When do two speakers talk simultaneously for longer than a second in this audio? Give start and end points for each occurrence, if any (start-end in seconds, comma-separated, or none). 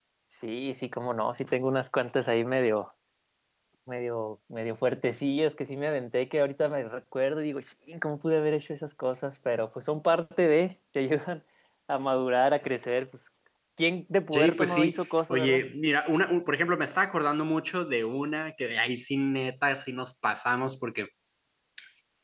14.3-15.6